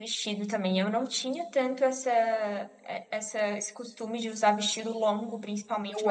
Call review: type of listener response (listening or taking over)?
listening